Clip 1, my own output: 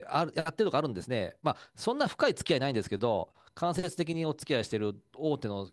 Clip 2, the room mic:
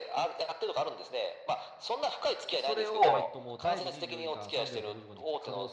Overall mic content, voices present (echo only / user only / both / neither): both